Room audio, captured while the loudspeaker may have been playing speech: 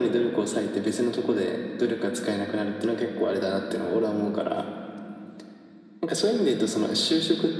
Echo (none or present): present